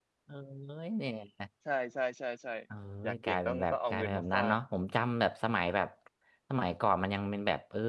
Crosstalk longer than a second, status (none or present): present